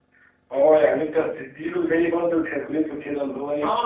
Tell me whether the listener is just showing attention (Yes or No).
No